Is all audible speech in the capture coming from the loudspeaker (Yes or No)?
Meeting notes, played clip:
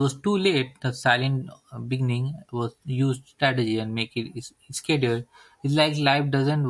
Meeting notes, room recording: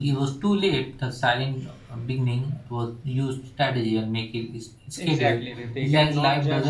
No